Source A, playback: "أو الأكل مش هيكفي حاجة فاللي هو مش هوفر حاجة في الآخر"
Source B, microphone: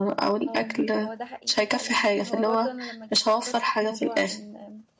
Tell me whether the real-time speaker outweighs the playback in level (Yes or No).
No